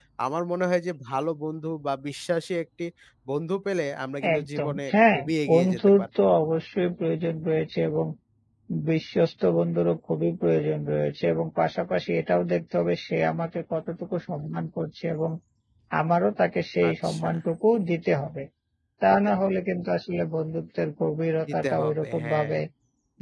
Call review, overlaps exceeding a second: present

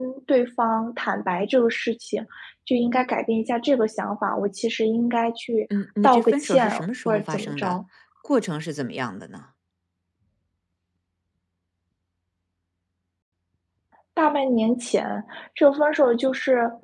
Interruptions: present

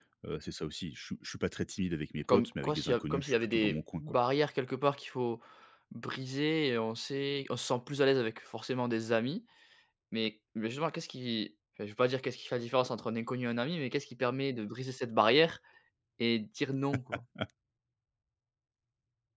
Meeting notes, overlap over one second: present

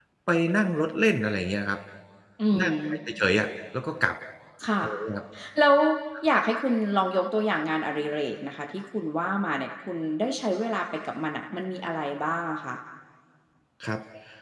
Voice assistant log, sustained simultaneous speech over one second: none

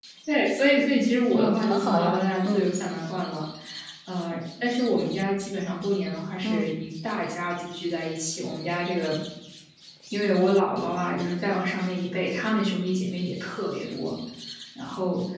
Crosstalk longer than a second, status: present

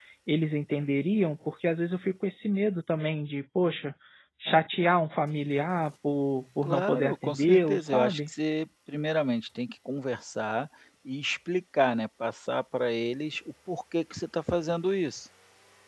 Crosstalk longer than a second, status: present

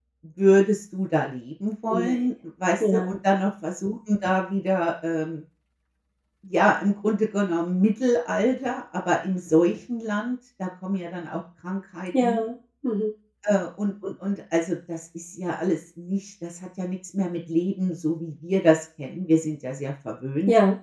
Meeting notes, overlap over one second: none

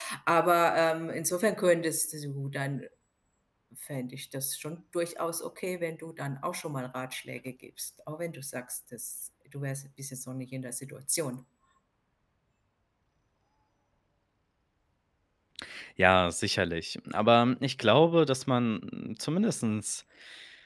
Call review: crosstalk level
none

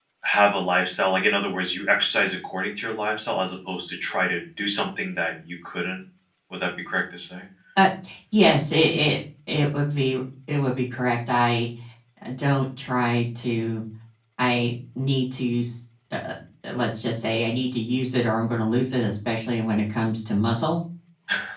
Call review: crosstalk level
none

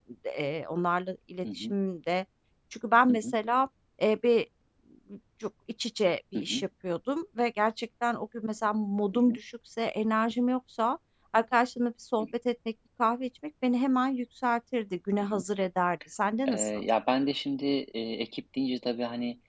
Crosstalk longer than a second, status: none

